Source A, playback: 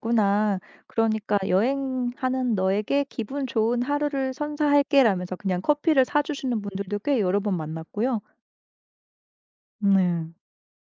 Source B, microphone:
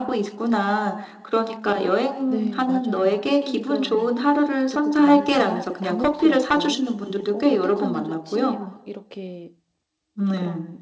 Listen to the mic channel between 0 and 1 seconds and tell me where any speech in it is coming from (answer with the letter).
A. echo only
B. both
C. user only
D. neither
A